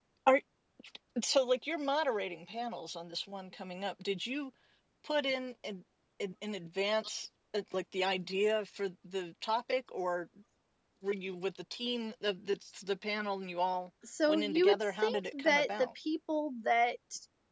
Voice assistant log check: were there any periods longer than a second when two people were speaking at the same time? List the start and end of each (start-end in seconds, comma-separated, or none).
14.3-15.9